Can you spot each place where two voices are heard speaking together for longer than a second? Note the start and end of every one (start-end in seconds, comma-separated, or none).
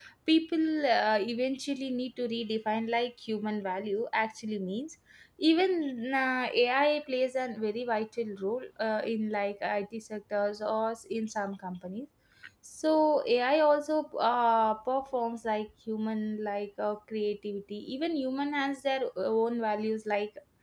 none